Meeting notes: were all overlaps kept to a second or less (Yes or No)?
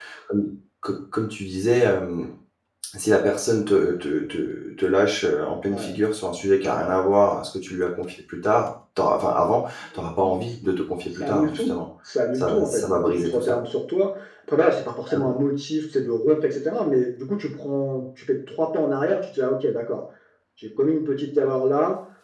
No